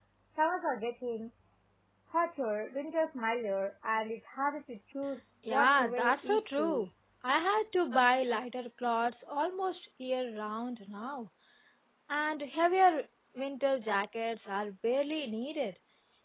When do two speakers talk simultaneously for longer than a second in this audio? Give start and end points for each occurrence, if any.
5.5-6.9

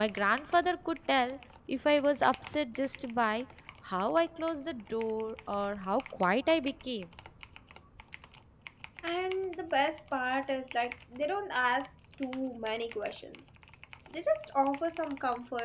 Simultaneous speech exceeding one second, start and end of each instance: none

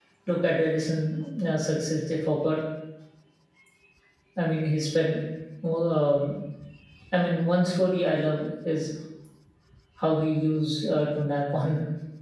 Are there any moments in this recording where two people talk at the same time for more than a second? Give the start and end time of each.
none

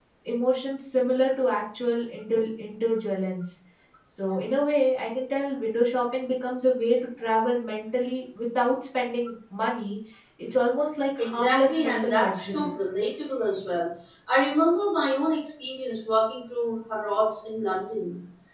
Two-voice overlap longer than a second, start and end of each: 11.2-12.7

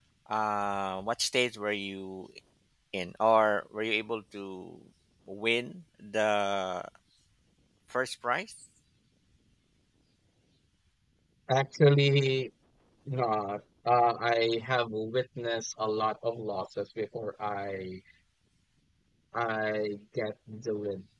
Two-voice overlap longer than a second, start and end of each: none

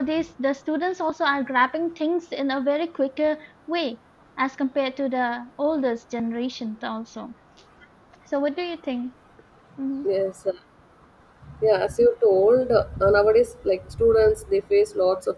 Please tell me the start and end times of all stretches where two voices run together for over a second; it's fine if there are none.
none

